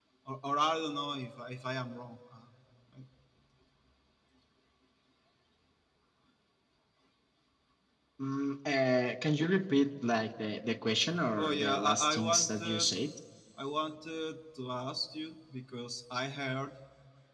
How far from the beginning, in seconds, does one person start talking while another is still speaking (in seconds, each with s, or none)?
11.4 s